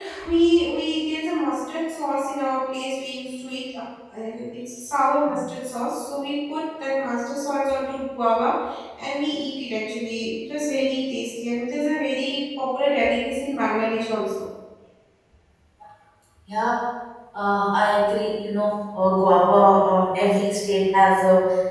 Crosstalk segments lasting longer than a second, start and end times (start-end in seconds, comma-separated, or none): none